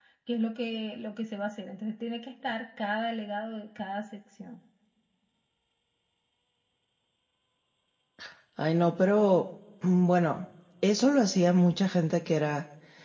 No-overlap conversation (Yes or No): Yes